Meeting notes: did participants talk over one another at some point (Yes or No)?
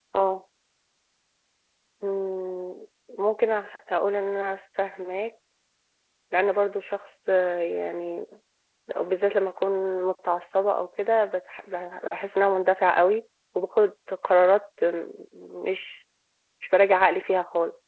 No